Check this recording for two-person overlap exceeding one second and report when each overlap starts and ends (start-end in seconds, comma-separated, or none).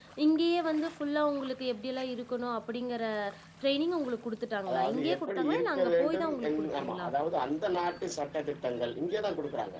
4.7-7.1